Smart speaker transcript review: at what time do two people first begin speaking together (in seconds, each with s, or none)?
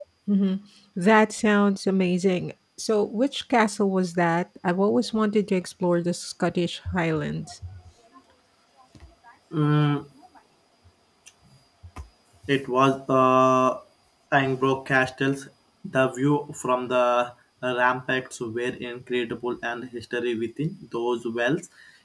none